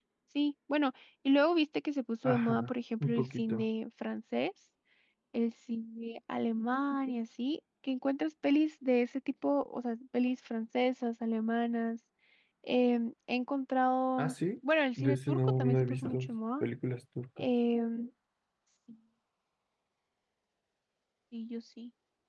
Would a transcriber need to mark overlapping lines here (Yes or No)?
Yes